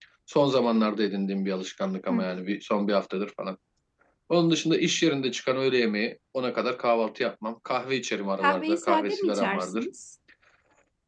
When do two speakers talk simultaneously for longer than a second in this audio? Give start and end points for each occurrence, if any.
8.4-9.8

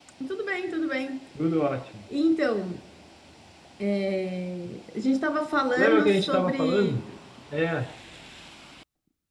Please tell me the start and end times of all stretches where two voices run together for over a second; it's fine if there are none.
5.8-7.0

